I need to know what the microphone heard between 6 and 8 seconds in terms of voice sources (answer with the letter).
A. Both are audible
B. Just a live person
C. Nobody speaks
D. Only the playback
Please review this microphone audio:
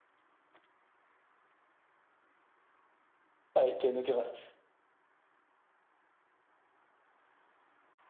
C